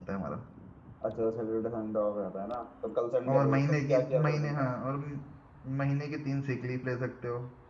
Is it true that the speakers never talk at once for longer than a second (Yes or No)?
No